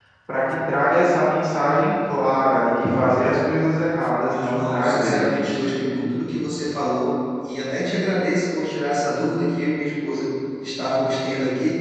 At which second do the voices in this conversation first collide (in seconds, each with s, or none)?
4.2 s